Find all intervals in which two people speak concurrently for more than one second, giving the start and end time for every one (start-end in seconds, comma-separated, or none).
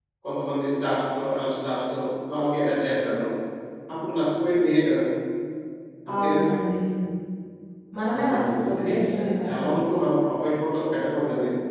8.2-9.8